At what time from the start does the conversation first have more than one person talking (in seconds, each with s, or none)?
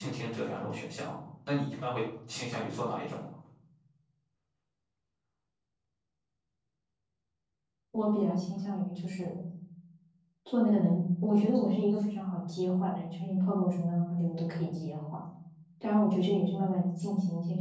none